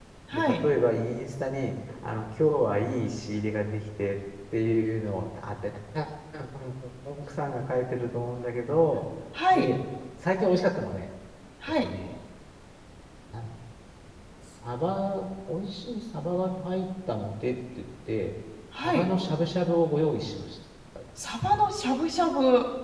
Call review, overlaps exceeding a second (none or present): none